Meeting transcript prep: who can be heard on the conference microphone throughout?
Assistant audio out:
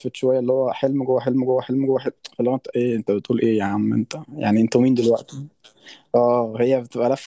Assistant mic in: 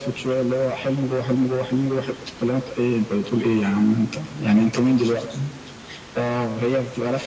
echo only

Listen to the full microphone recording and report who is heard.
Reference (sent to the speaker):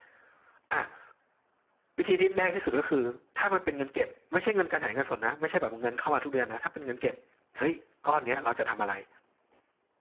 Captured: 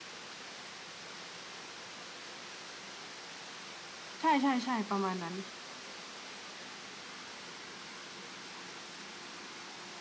user only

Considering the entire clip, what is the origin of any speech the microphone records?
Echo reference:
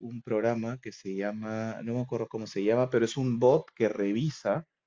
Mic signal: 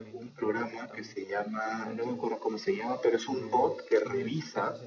both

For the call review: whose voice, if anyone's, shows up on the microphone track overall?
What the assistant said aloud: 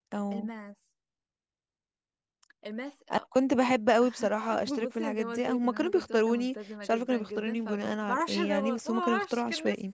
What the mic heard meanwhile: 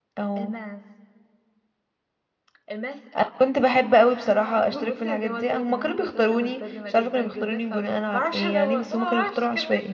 echo only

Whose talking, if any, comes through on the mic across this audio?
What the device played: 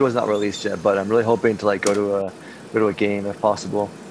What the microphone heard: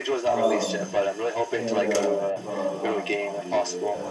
both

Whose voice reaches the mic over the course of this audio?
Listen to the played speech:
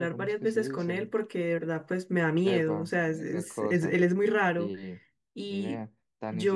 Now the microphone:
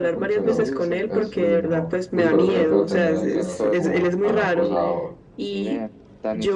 both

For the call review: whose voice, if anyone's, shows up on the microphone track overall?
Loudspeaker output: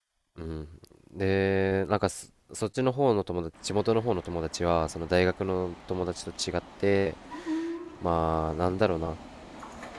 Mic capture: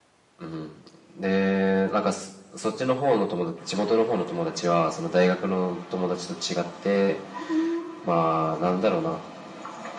echo only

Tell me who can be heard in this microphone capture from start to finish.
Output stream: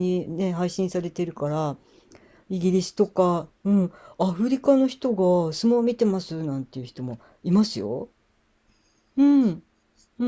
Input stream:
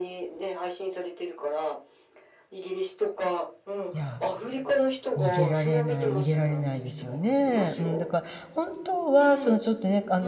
both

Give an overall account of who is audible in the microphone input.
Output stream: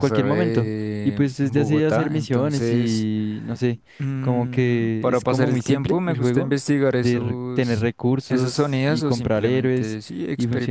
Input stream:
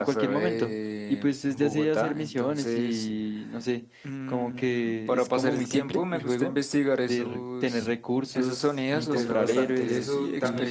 both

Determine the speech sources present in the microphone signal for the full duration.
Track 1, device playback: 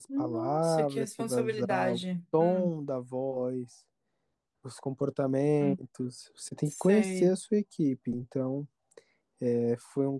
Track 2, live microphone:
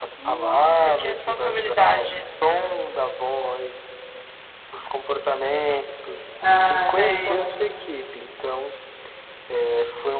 both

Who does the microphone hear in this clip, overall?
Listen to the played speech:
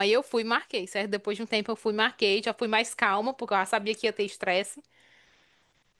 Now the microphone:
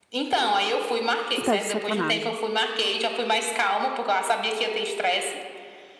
both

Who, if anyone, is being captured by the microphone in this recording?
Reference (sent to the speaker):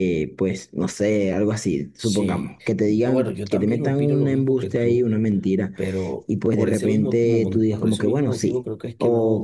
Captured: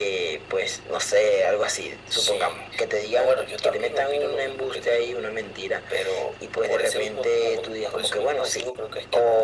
echo only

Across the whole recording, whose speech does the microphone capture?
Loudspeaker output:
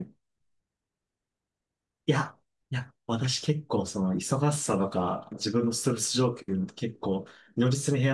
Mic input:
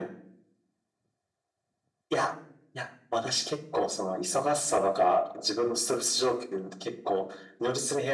echo only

